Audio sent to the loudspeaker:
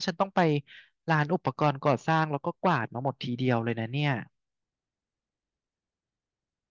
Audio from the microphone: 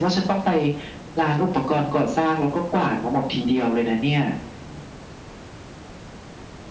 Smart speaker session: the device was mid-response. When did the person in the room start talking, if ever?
none

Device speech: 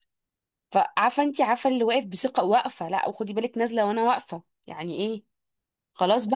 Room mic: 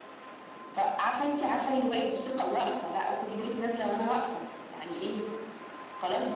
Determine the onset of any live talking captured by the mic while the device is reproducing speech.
none

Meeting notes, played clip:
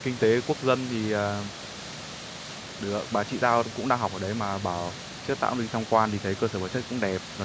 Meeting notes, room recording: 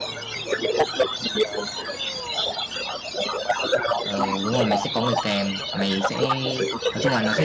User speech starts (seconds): 4.0 s

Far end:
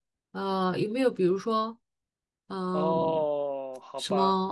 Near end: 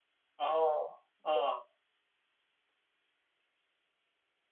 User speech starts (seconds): 0.4 s

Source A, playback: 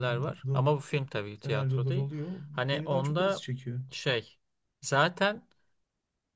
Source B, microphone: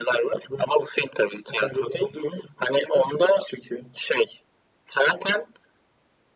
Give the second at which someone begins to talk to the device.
none

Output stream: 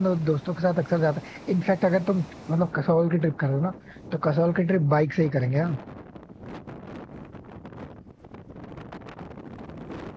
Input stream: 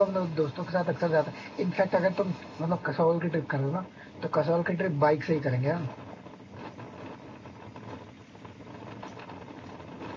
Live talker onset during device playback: none

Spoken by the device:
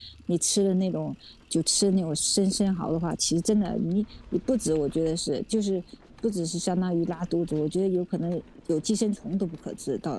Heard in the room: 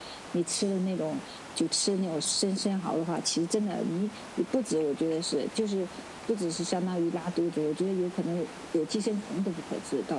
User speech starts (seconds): none

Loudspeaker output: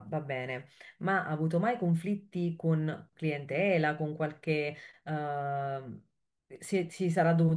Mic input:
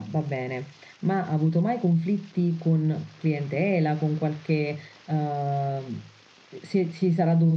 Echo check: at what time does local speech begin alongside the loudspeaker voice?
none

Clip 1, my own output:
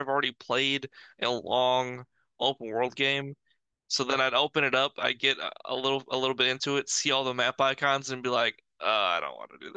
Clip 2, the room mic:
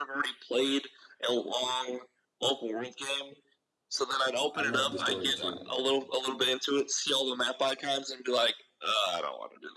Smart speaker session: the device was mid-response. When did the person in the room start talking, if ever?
4.5 s

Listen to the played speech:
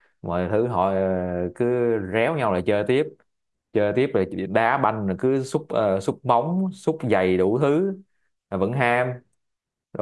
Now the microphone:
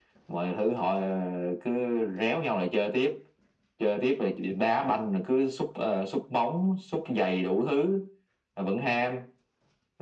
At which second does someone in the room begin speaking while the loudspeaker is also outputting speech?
none

